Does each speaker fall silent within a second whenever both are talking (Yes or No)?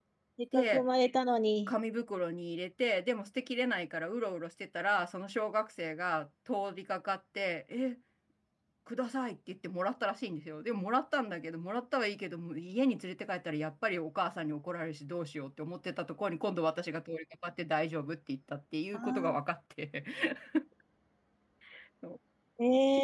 Yes